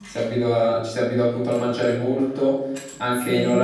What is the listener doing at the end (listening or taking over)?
listening